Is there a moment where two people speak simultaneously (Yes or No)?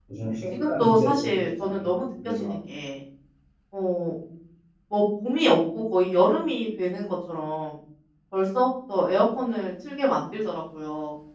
Yes